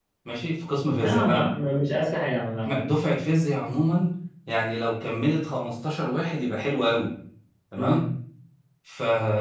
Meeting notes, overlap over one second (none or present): none